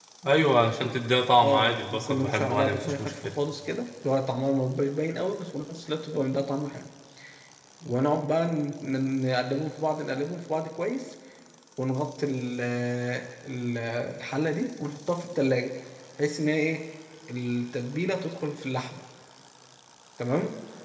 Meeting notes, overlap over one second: present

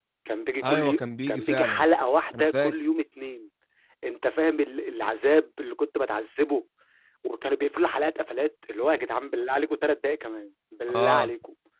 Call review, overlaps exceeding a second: present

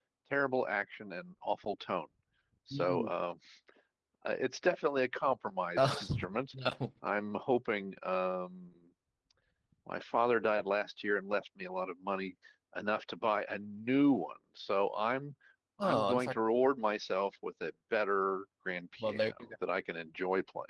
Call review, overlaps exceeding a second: none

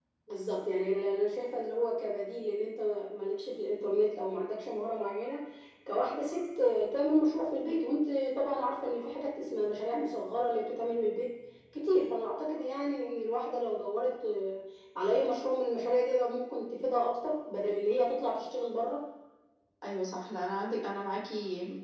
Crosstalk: none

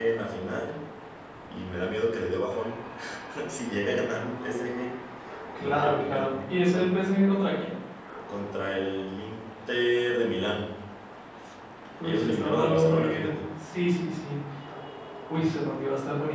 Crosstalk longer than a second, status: present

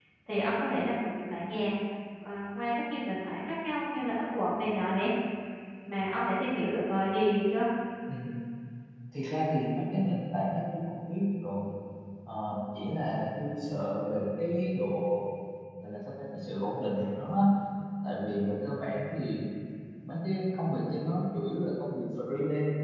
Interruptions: none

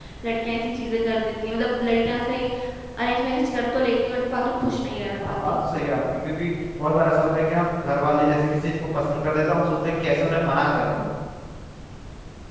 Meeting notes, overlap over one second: none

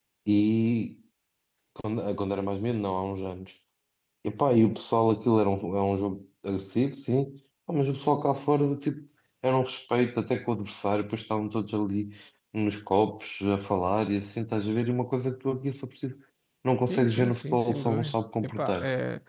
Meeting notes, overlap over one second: present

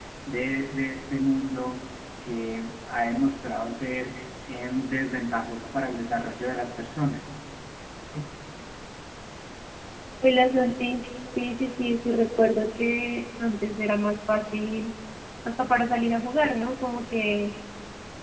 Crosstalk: none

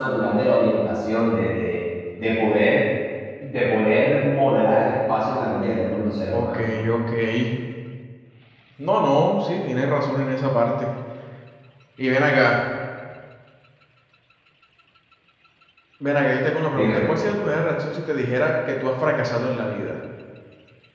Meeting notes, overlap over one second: none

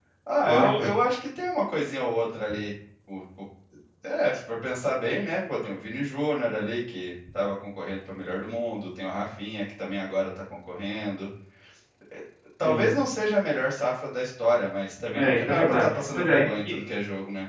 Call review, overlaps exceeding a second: present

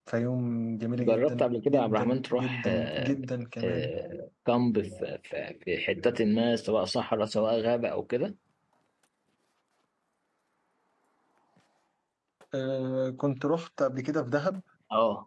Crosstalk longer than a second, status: present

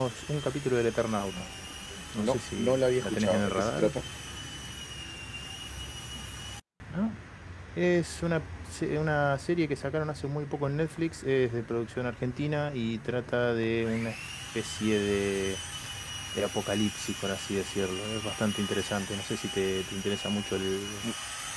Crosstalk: present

